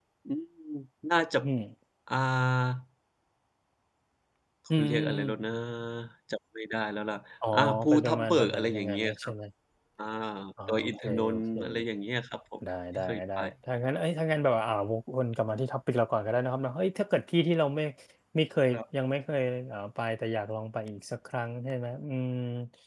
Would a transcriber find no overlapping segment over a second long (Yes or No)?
No